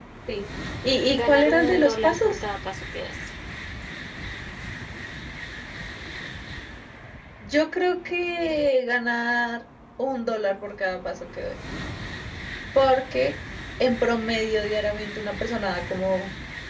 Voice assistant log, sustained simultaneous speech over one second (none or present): present